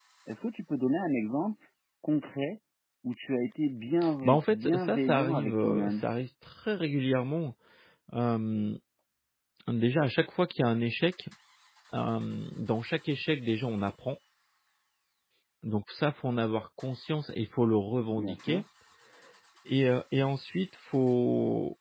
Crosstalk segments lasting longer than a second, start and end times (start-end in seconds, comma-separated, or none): 4.2-6.0